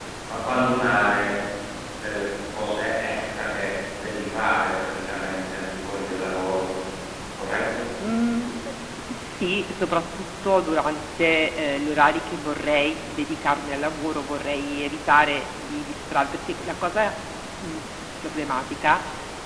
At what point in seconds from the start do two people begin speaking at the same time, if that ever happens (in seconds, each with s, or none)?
none